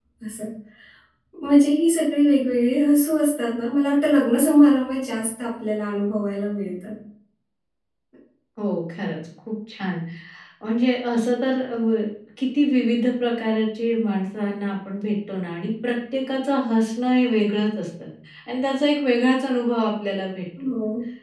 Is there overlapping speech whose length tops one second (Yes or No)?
No